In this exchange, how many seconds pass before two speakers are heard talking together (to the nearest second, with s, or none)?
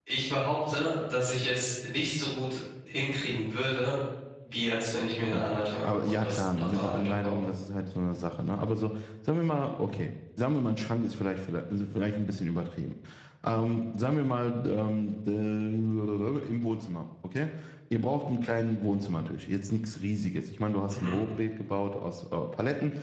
5 s